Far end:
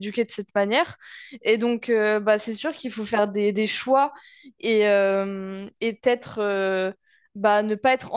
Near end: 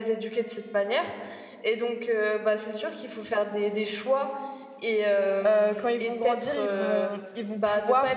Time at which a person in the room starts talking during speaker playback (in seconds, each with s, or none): 5.5 s